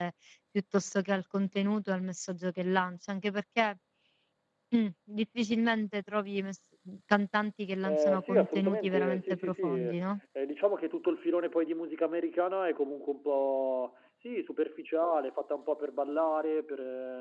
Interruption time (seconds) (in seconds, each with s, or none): 7.8 s